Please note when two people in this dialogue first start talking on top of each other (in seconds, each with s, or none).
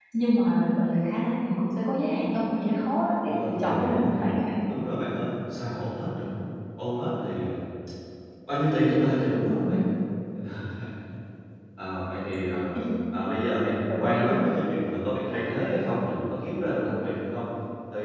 3.3 s